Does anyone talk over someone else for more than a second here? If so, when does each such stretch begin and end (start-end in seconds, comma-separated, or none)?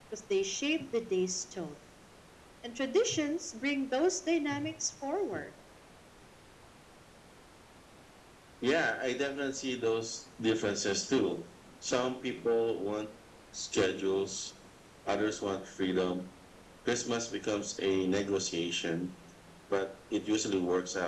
none